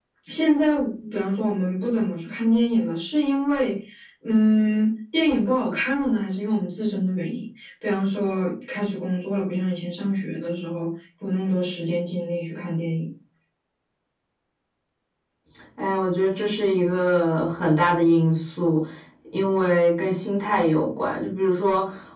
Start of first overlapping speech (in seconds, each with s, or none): none